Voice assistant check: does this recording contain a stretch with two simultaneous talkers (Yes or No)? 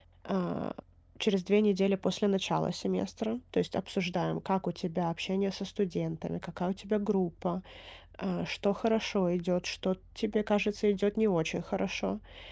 No